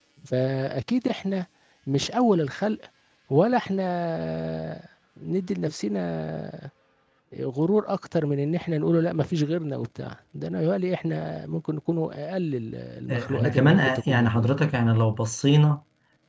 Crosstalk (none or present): present